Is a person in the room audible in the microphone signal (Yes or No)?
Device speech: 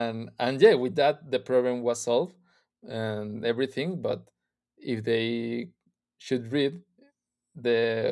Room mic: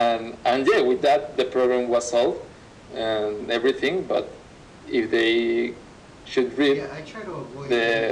Yes